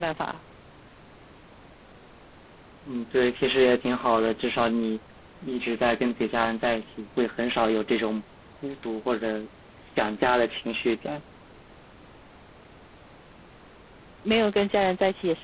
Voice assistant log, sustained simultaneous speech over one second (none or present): none